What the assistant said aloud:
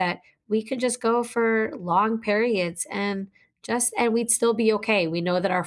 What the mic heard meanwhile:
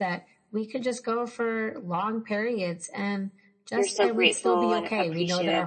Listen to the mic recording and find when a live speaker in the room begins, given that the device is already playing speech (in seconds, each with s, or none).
3.7 s